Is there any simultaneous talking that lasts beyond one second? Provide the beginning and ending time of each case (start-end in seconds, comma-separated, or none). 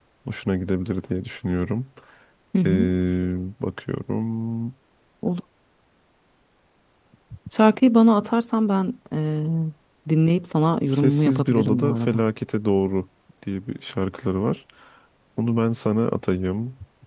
10.9-12.2